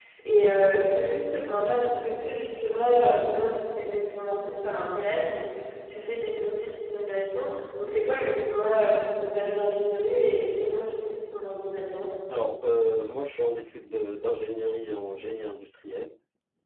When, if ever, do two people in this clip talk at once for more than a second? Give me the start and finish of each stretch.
none

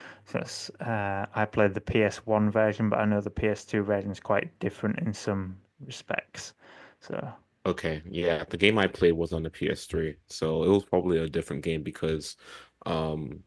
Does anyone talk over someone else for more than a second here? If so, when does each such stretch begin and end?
none

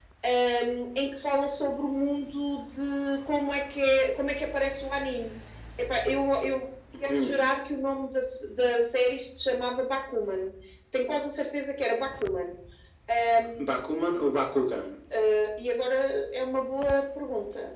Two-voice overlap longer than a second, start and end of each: none

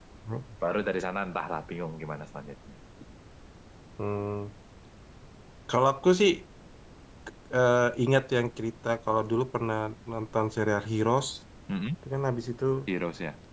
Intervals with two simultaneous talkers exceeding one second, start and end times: none

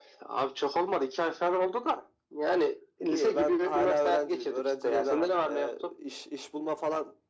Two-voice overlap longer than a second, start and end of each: 3.1-5.7

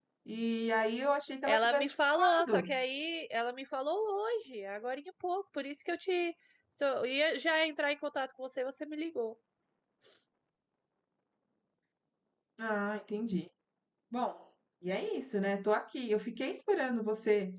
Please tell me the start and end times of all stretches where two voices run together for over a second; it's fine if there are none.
1.5-2.7

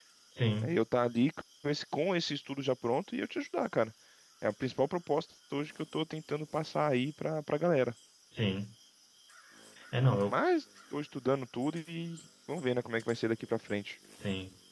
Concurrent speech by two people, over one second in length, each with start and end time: none

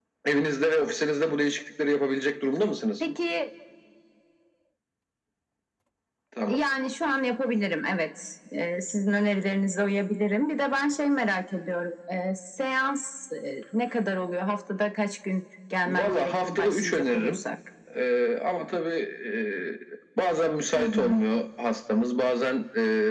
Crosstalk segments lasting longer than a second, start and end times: 15.8-17.4

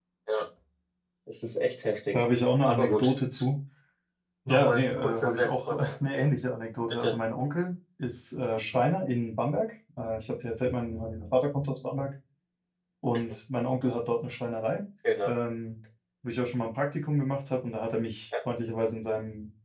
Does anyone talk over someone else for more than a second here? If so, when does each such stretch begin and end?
4.5-5.9

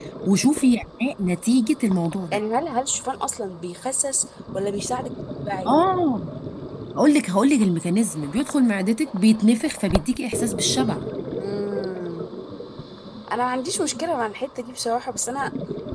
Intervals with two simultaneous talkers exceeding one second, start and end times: none

